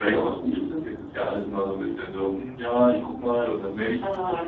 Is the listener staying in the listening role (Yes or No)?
No